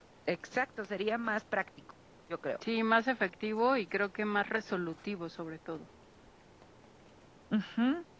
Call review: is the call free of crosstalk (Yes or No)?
Yes